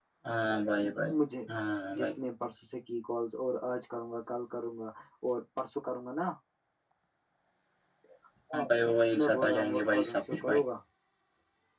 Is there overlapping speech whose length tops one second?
Yes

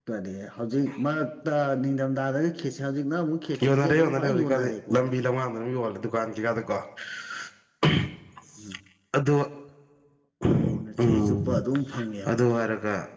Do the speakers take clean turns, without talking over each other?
No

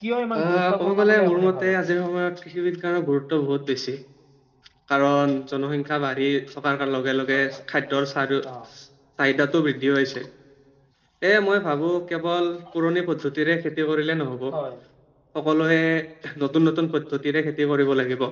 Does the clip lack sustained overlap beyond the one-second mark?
No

